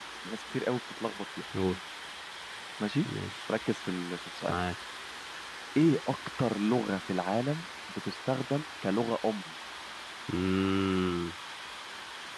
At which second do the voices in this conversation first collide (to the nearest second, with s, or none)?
none